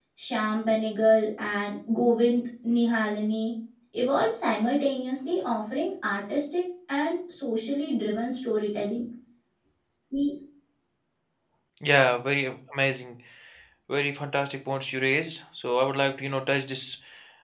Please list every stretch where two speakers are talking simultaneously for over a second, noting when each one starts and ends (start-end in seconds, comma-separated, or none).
none